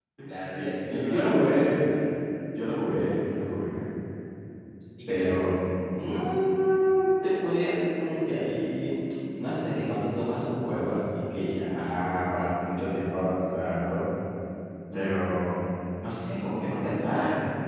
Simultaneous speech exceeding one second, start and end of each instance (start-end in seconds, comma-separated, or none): 0.5-1.8